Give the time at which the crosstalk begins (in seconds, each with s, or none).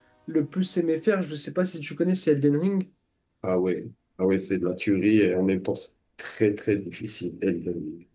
none